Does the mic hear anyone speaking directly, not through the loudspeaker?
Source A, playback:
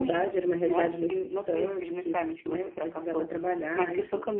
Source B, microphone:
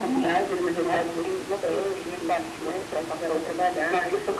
No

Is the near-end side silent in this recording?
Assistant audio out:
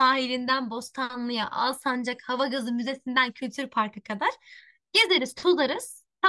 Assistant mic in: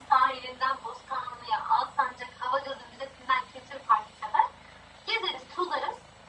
Yes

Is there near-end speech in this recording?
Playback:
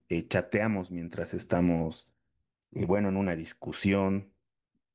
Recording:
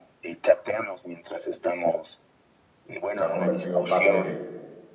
Yes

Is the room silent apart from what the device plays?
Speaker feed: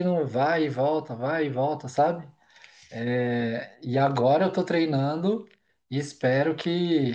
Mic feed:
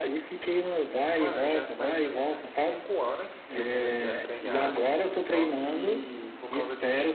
No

